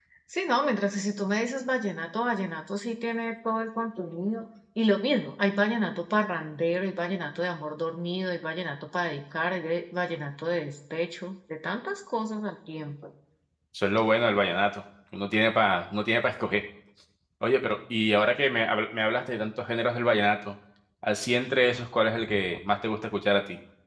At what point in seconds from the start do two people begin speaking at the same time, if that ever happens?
none

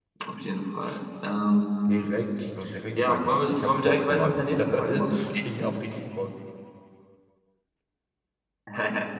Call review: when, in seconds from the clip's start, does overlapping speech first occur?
3 s

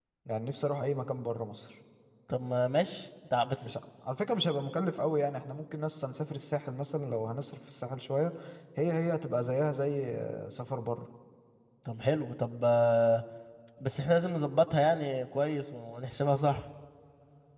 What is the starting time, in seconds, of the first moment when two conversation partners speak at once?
none

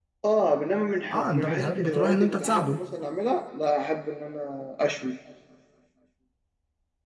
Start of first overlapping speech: 1 s

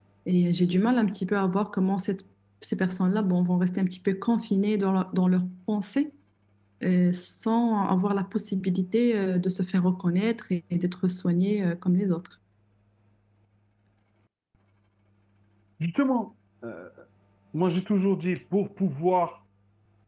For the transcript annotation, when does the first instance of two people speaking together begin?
none

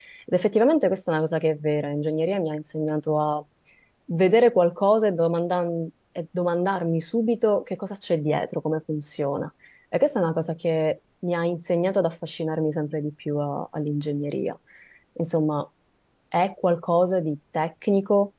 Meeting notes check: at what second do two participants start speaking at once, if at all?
none

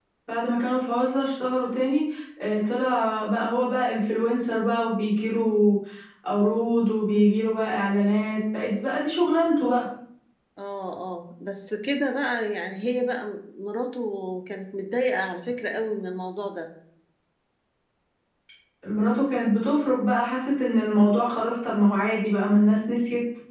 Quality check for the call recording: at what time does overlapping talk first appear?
none

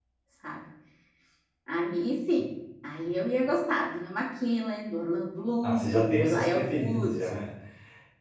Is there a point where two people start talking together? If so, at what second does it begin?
6 s

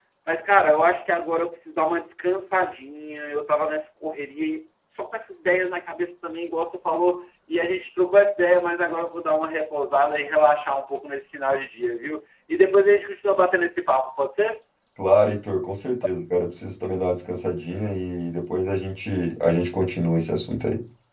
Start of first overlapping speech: none

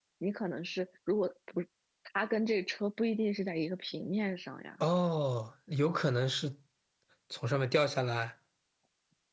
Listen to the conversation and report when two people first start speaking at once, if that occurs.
none

